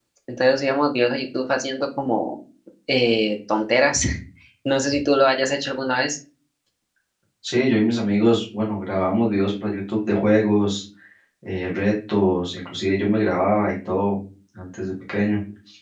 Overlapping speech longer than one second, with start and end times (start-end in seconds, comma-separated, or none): none